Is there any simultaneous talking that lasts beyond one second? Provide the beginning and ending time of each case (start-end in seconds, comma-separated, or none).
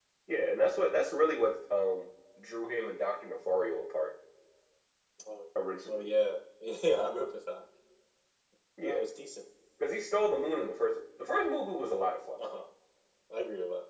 none